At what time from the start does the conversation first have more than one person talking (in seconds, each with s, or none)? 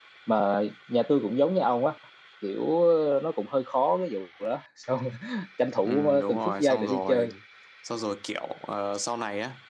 5.8 s